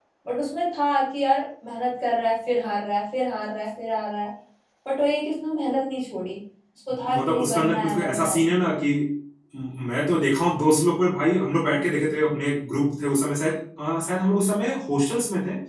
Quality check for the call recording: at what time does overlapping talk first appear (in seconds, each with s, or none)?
6.9 s